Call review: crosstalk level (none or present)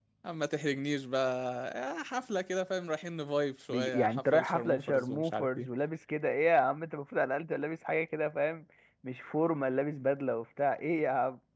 present